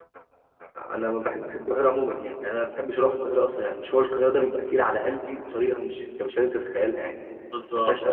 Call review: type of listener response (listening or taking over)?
taking over